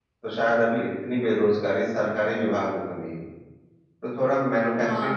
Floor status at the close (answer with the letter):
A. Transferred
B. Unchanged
A